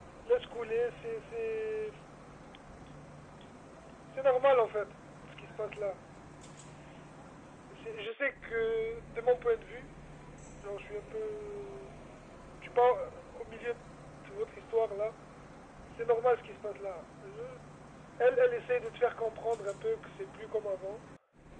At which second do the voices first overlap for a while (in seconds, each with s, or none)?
none